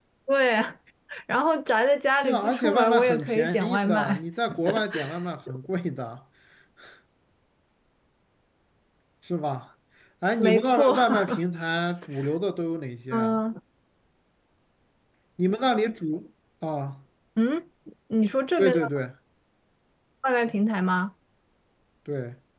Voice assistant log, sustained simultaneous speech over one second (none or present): present